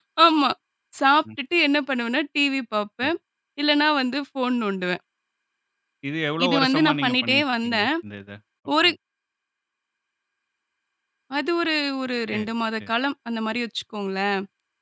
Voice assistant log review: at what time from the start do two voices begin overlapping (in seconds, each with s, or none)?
6.4 s